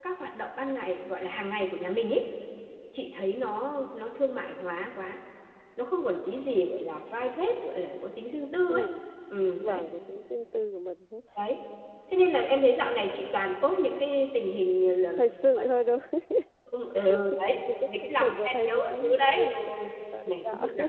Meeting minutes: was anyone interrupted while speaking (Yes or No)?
Yes